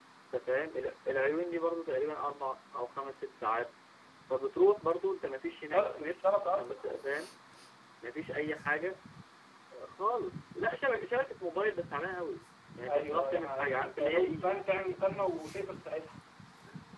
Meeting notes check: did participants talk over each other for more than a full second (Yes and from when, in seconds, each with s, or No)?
Yes, from 5.7 s